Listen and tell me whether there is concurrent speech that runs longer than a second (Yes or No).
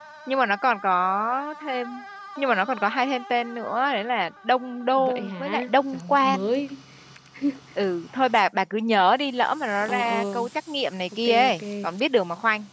Yes